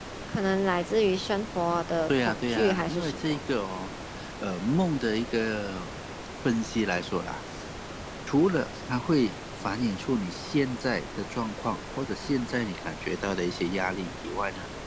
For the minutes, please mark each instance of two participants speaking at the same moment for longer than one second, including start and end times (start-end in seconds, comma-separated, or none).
2.1-3.4